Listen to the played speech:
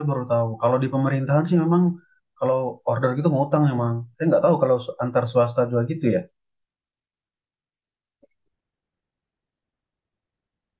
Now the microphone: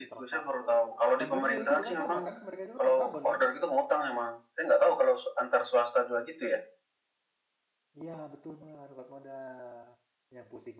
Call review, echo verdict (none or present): present